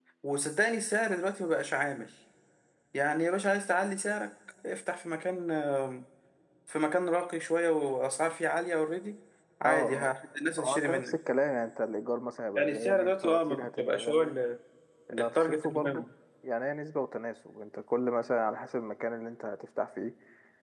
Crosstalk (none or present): present